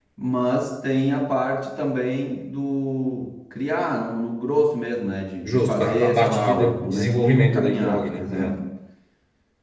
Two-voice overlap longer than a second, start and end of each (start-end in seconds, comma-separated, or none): 5.5-8.5